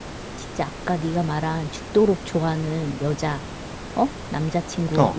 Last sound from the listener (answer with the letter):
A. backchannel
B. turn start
A